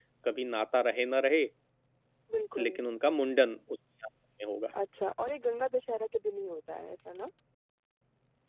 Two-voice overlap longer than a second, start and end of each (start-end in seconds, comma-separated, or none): none